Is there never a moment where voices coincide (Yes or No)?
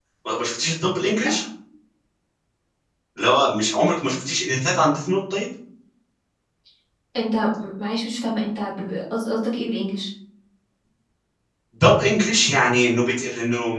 Yes